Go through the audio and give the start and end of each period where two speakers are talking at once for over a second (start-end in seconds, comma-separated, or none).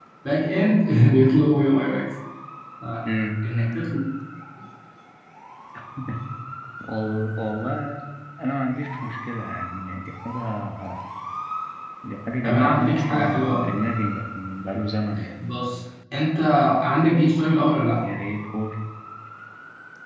12.4-13.8